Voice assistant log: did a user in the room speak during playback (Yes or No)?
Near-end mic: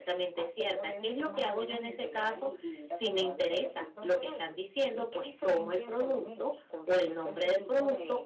Yes